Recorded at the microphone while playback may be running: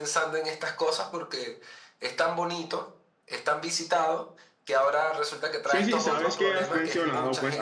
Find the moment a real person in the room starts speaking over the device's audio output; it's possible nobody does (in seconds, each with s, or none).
5.6 s